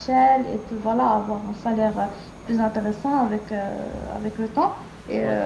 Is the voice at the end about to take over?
No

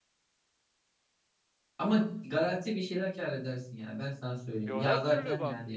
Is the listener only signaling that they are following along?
No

